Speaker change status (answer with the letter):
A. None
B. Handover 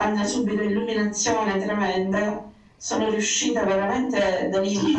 B